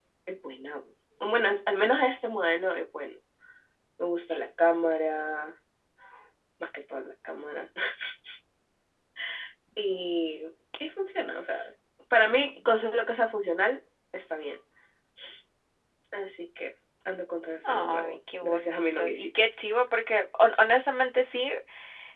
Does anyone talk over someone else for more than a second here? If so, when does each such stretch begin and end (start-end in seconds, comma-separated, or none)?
17.7-19.4